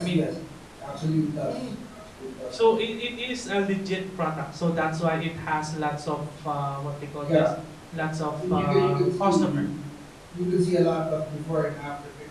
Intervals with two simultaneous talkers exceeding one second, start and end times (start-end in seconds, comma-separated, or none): 8.3-9.6